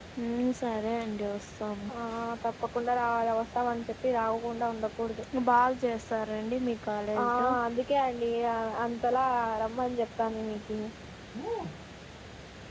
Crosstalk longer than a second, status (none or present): none